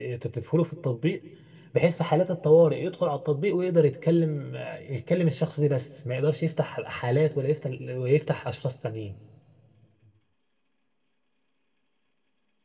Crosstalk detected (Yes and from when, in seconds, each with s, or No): No